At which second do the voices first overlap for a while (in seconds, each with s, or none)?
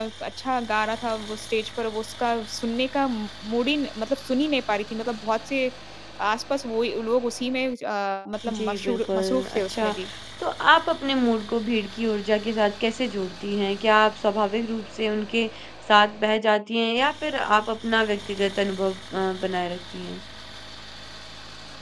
8.4 s